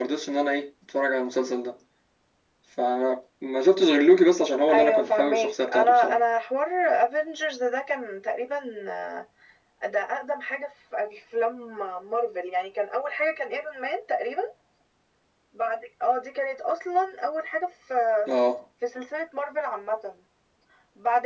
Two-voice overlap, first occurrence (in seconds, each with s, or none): 4.7 s